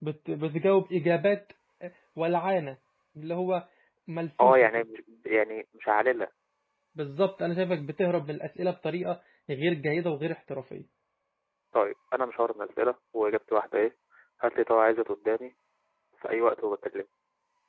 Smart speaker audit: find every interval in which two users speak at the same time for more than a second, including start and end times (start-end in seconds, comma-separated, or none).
none